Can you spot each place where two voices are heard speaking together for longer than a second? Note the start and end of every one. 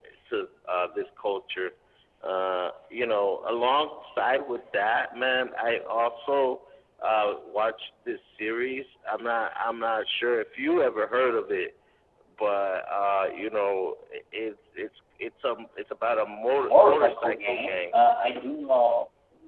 16.5-17.9

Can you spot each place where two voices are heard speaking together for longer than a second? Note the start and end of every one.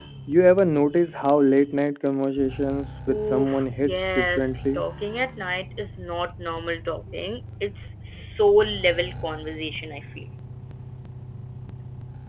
3.1-4.8

